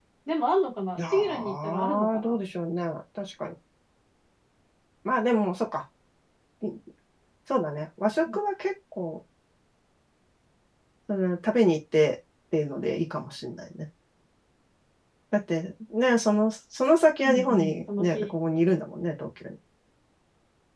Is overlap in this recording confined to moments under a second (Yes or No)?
No